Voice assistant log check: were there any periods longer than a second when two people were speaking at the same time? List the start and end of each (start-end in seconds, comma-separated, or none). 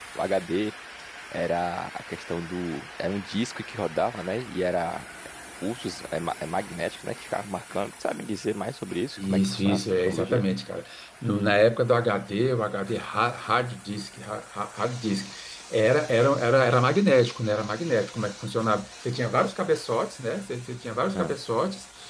9.2-10.4